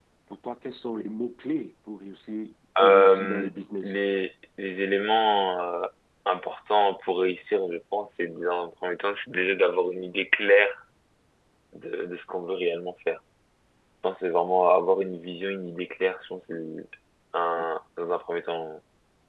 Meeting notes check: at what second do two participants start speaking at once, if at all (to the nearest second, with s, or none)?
3 s